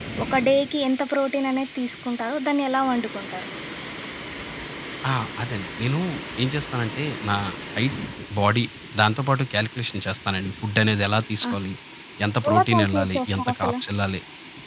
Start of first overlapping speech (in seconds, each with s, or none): 12.5 s